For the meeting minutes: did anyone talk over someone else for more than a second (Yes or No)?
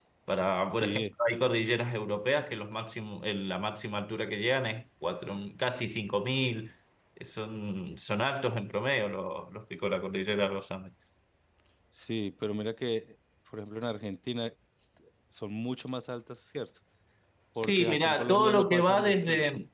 Yes